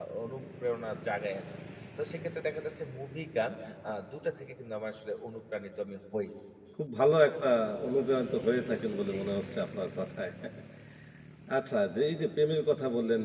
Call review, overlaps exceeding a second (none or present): none